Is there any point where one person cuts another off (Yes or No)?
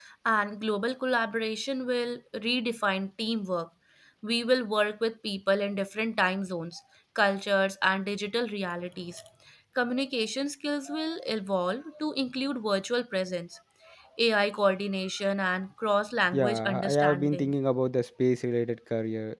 Yes